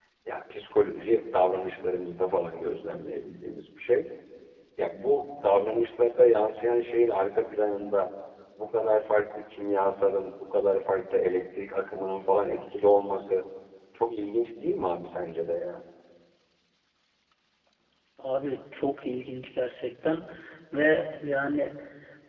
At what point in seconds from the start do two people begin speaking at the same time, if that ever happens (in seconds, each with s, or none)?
none